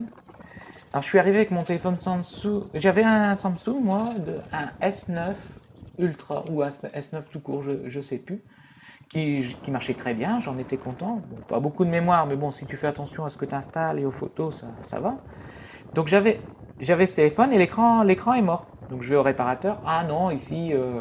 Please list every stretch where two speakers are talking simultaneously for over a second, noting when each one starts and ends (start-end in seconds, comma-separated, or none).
none